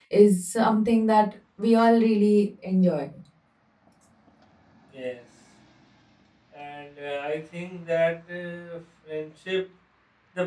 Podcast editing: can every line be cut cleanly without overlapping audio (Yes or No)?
Yes